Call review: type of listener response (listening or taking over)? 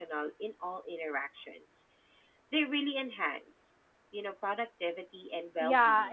taking over